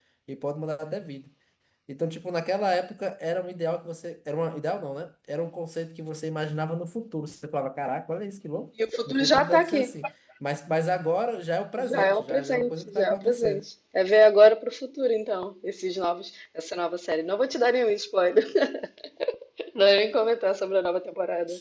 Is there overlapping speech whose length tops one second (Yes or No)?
Yes